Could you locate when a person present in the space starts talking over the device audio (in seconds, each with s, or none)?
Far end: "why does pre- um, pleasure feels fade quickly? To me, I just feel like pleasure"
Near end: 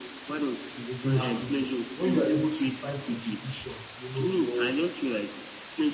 0.7 s